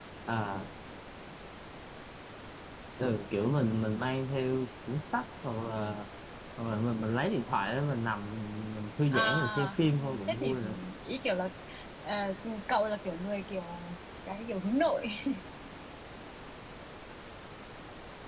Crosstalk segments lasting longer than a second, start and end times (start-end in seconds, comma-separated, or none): 9.1-10.6